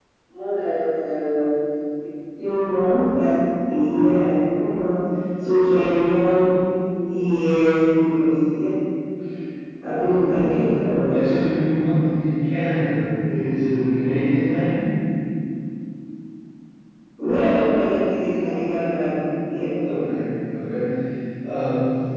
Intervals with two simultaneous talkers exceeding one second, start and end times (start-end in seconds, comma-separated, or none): none